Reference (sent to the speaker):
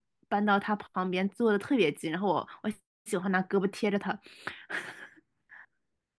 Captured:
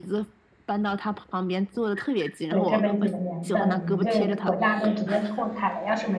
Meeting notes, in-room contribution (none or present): present